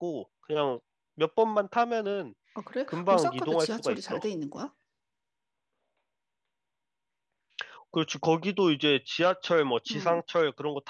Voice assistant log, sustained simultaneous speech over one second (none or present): present